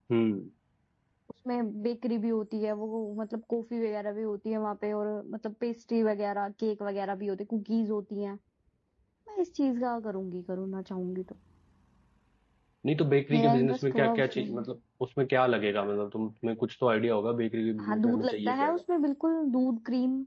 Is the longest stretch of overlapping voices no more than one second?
No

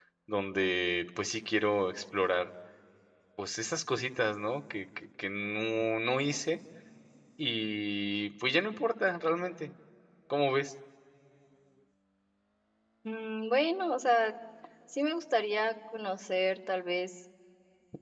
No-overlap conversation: Yes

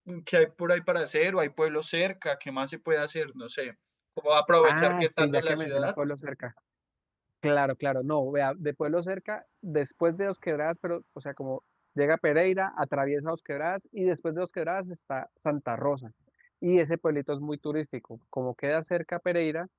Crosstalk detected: Yes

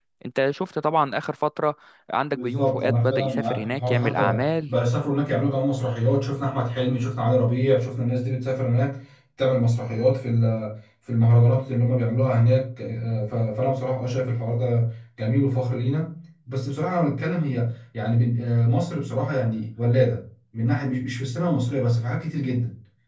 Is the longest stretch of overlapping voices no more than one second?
No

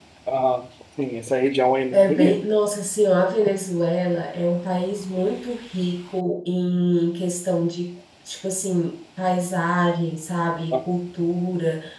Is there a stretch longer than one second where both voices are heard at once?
No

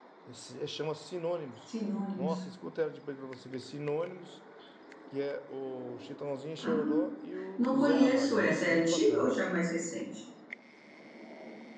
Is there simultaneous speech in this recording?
Yes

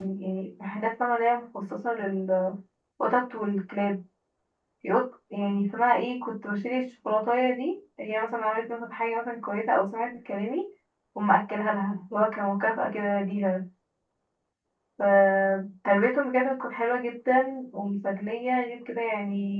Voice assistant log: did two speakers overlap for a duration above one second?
No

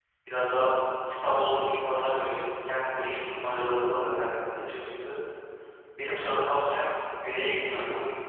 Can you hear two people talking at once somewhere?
No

